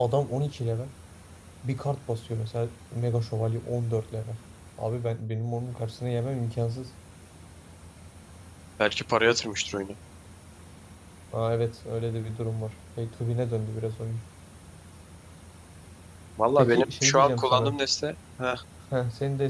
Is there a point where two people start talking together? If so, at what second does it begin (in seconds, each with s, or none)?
16.6 s